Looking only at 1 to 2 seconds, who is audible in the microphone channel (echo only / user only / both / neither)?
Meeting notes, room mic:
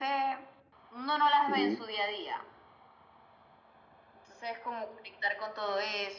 both